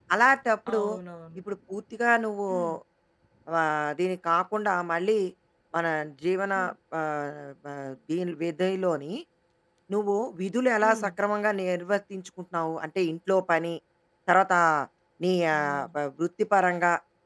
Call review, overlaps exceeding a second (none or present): none